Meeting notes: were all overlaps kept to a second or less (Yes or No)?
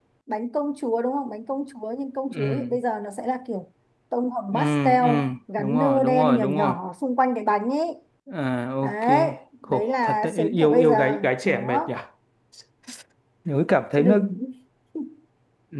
No